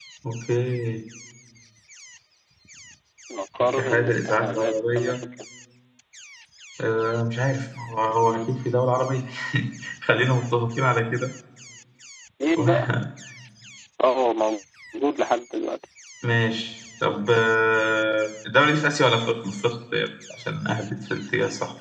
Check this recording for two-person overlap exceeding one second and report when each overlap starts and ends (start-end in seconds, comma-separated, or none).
3.8-5.2